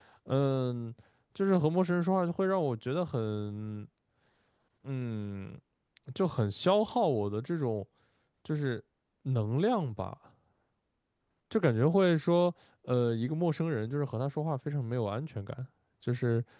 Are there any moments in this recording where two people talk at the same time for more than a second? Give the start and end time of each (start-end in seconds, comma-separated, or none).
none